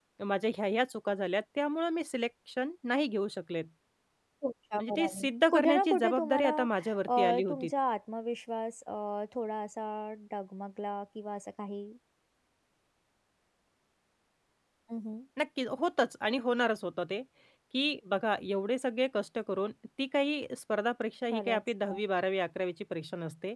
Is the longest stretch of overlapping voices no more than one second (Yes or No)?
No